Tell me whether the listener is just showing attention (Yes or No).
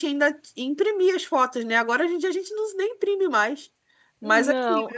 Yes